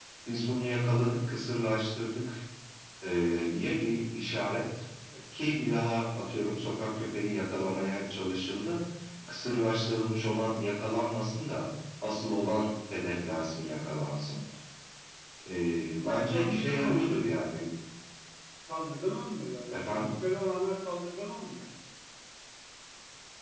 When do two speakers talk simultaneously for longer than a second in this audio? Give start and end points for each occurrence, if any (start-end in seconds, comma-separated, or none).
16.0-17.2